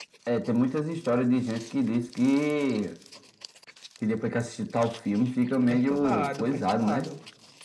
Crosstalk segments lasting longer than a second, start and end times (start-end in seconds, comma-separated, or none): 5.7-7.1